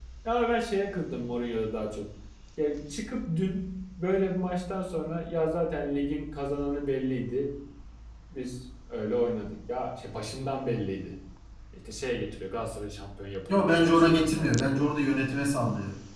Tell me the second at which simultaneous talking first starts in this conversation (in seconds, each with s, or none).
13.4 s